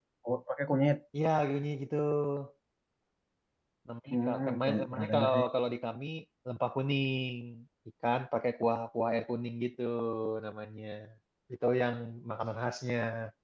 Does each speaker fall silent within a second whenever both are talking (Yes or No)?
No